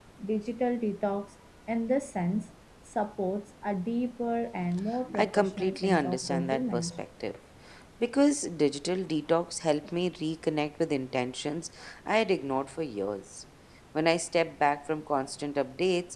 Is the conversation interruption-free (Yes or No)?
No